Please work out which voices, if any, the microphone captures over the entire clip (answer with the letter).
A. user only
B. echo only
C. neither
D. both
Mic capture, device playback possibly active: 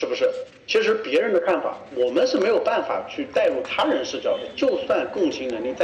B